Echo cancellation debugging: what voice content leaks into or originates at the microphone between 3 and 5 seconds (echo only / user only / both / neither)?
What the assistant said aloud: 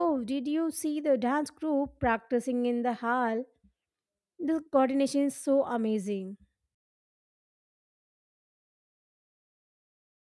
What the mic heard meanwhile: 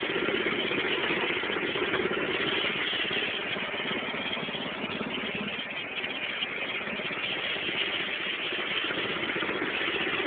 neither